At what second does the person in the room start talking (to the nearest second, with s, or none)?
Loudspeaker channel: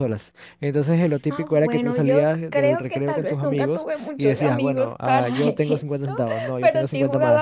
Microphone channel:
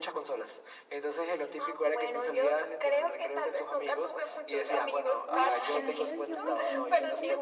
5 s